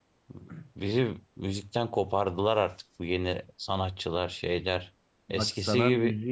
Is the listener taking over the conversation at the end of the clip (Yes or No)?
Yes